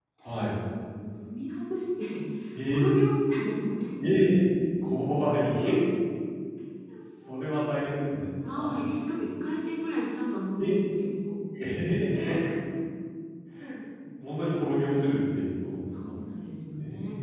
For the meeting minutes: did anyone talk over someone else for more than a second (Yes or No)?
No